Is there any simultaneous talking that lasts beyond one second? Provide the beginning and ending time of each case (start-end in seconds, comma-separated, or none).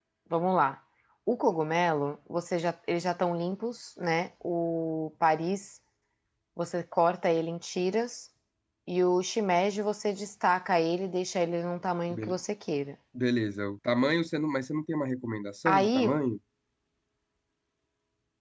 none